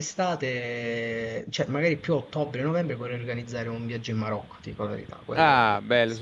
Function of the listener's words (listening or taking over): taking over